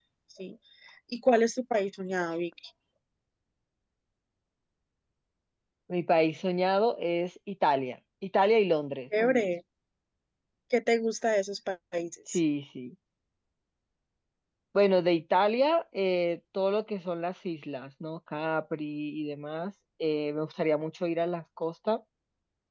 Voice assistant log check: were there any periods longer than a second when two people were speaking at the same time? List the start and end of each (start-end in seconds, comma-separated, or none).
none